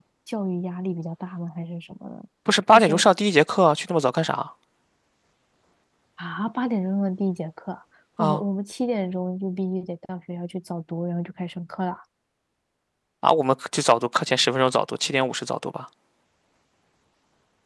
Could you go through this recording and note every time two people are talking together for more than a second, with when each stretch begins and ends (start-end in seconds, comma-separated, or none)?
none